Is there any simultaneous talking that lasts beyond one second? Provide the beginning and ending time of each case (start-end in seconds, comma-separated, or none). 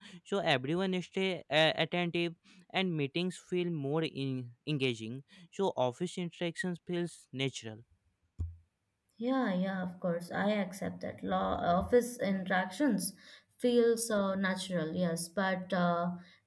none